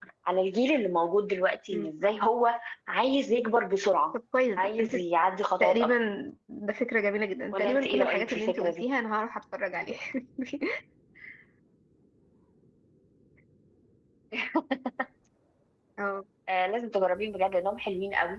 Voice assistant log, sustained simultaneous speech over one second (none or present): present